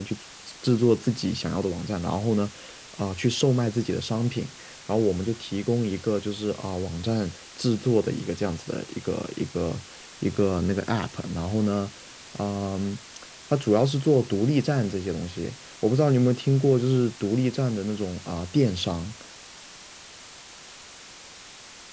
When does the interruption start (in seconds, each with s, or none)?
none